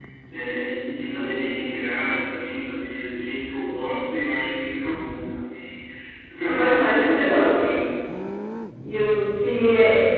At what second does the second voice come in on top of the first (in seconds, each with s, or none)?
6.4 s